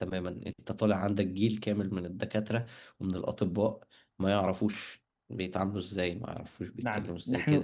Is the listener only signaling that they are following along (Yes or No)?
No